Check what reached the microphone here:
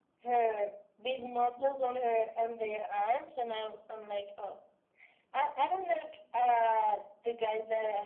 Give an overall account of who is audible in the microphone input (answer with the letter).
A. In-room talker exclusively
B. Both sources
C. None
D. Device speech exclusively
D